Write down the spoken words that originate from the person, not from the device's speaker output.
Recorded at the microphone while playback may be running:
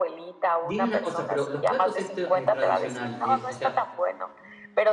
dime una cosa, pero los platos esto, eh, tradicional, eh, o sea,

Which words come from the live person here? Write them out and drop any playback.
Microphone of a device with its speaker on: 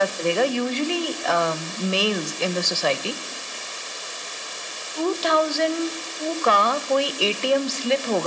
none

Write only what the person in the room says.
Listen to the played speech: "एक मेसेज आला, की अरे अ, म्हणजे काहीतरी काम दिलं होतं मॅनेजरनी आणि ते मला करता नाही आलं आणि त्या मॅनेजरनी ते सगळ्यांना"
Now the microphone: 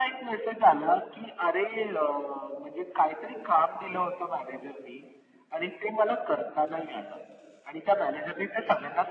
none

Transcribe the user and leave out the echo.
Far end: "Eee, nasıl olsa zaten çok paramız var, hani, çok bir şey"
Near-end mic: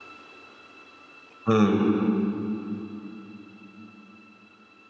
Hımm.

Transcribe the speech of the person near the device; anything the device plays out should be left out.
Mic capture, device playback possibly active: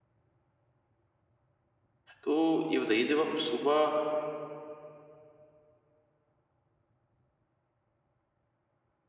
तो ये बताइए जब आप सुबह

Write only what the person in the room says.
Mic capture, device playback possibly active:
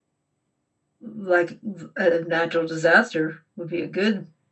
like v- a natural disaster would be a good

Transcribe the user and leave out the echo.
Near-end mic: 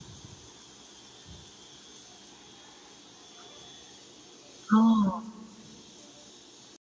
哦，

